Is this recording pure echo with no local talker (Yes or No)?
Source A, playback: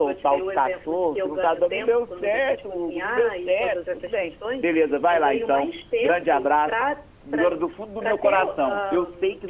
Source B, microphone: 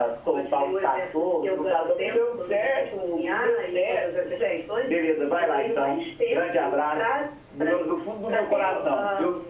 Yes